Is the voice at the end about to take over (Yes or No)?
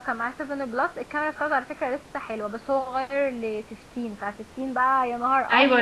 Yes